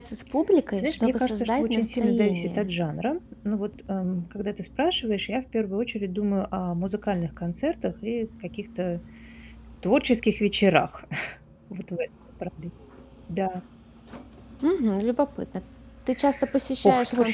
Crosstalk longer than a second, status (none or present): present